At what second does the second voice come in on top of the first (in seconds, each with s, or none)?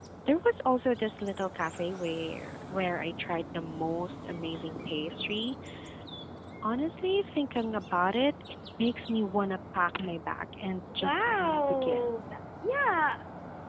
11.0 s